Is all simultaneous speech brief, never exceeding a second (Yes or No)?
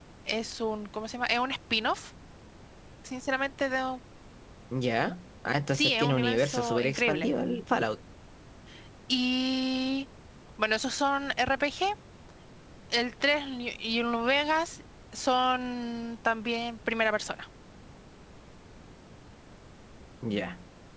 No